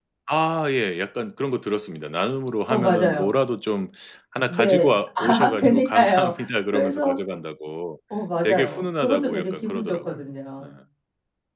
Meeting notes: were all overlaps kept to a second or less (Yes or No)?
No